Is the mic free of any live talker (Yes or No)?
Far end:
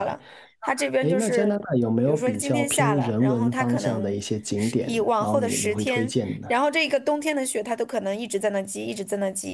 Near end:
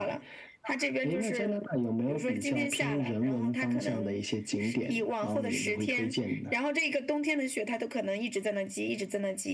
Yes